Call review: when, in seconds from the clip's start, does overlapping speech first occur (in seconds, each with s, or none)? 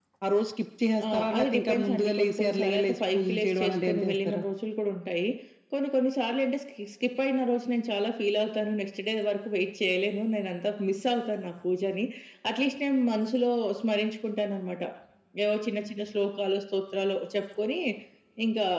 1.1 s